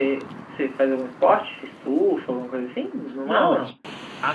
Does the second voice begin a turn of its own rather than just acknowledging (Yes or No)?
Yes